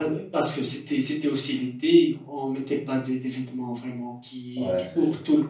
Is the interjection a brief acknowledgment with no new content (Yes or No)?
Yes